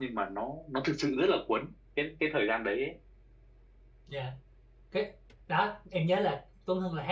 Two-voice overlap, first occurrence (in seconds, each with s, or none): none